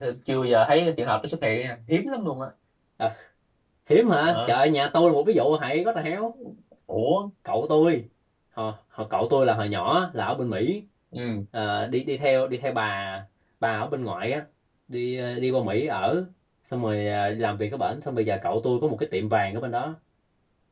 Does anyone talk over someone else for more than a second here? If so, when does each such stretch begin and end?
none

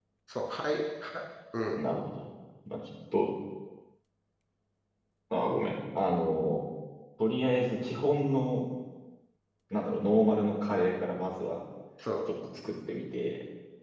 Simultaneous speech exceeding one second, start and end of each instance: none

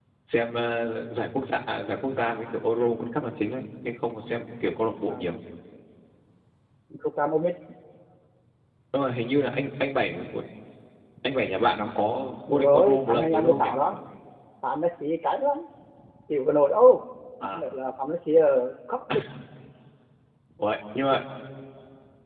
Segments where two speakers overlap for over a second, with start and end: 12.5-13.7

